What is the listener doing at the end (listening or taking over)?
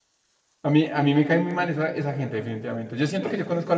listening